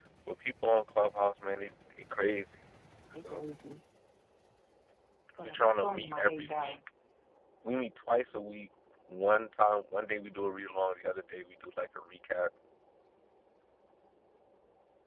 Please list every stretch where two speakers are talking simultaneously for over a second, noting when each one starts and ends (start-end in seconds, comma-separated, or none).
5.5-6.8